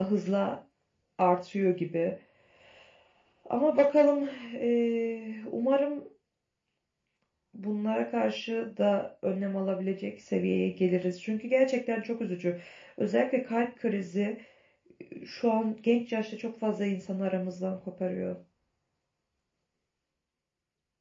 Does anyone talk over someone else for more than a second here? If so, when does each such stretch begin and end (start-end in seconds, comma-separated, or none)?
none